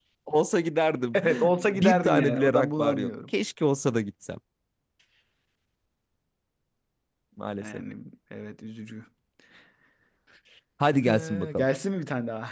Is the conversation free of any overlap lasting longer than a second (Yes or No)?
No